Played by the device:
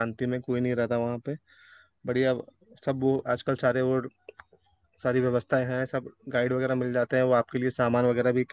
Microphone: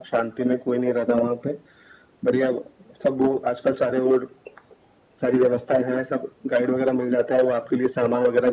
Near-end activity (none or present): none